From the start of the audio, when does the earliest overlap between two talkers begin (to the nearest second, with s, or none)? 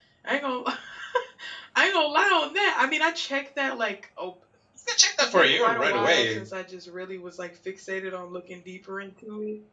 5 s